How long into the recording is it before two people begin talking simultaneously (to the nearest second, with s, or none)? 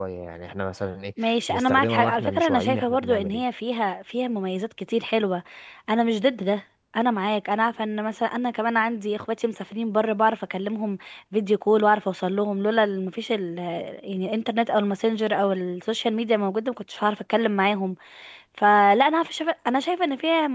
1 s